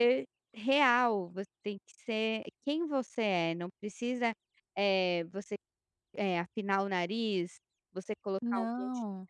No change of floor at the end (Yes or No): Yes